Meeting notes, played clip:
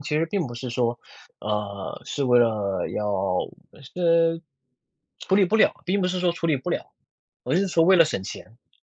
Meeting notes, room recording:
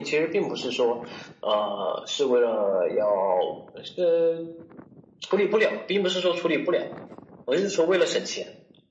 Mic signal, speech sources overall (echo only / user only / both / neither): echo only